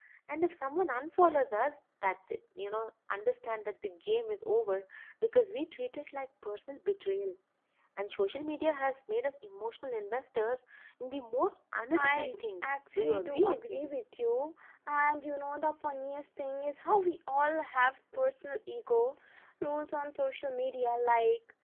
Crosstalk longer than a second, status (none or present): present